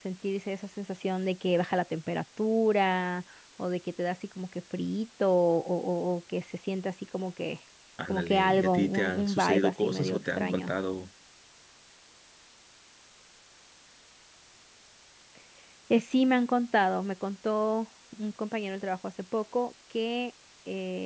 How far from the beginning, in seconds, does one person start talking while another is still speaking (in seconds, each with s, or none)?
8.1 s